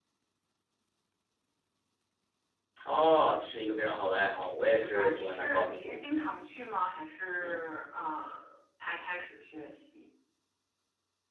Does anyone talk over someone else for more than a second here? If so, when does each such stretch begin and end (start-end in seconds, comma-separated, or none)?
4.6-5.9